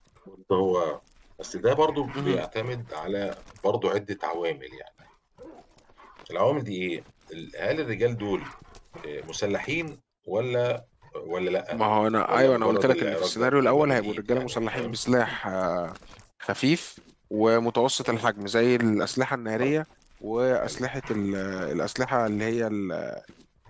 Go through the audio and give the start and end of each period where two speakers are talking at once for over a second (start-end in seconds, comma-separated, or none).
12.3-15.0